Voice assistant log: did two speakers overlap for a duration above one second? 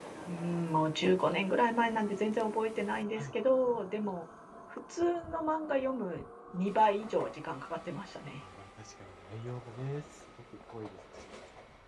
No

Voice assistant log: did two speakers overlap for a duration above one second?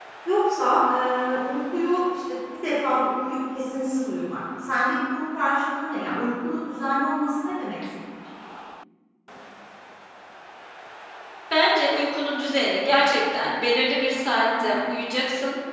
No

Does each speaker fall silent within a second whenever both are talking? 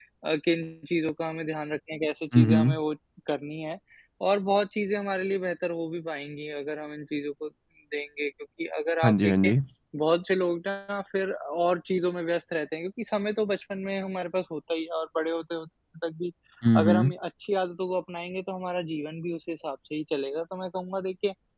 Yes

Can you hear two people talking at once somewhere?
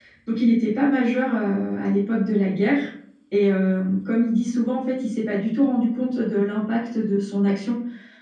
No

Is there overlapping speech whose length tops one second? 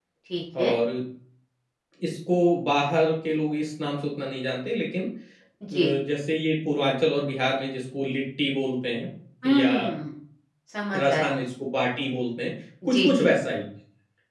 No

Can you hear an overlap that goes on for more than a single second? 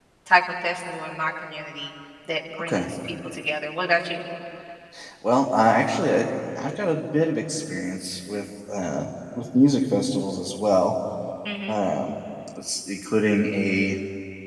No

